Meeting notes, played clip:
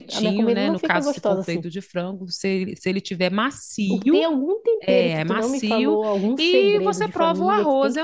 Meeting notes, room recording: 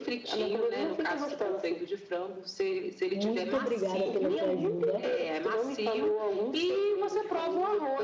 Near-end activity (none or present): present